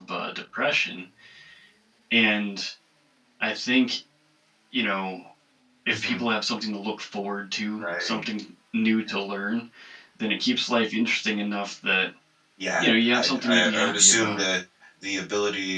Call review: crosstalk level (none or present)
present